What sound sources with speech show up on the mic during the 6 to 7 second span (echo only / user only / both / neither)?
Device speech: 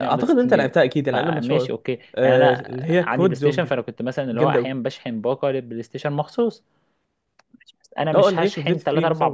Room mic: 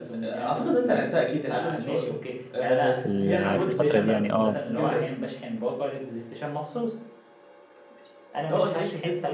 echo only